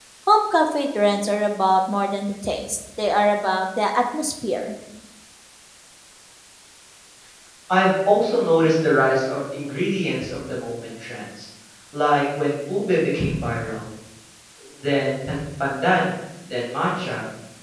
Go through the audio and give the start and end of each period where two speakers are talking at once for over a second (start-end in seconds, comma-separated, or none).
none